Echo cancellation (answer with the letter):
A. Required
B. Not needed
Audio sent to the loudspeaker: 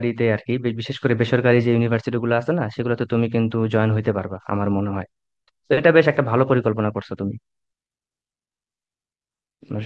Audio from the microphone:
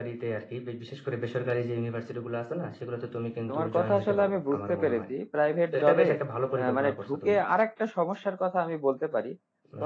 A